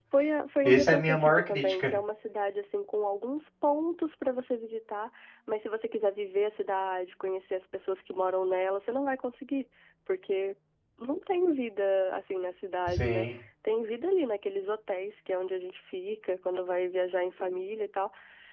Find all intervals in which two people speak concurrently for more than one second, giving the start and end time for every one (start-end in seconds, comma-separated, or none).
0.6-1.9